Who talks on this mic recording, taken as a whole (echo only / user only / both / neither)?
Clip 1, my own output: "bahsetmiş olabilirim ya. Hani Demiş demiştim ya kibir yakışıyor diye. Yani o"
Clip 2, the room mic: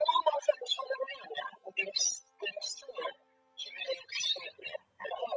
echo only